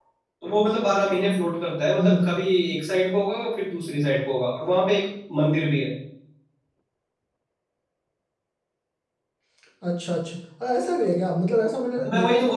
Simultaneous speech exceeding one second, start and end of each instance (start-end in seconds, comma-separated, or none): none